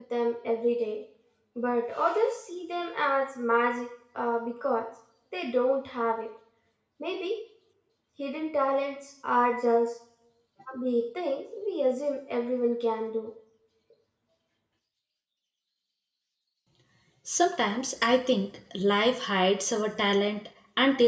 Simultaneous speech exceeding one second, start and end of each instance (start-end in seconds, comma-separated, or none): none